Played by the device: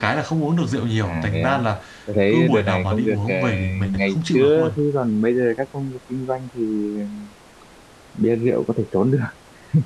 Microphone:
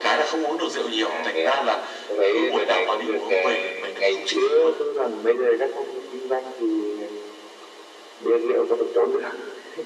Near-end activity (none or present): none